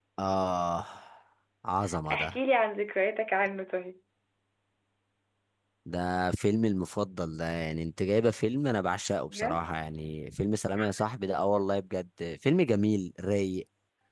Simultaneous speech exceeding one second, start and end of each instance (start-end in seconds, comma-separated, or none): none